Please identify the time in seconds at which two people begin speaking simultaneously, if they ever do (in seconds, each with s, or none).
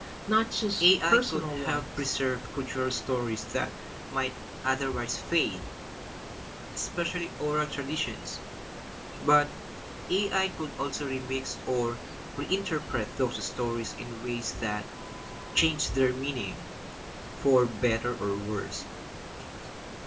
0.8 s